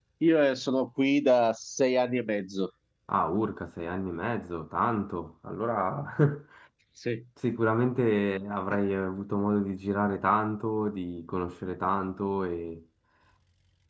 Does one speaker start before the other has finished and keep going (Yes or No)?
No